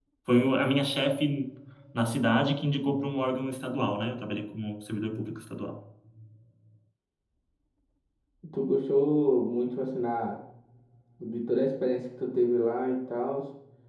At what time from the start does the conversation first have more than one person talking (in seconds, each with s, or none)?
none